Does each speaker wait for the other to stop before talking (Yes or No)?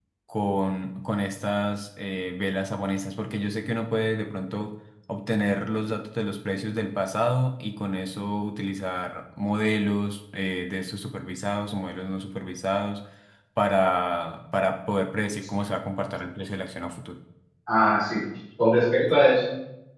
Yes